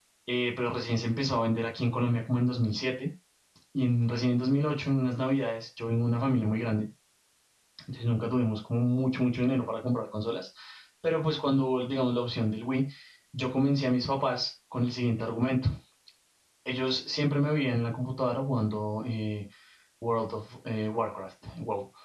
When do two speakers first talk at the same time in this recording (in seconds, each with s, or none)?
none